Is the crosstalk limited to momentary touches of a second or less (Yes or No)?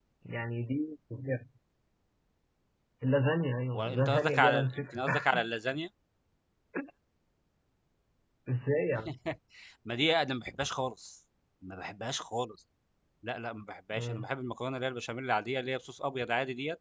No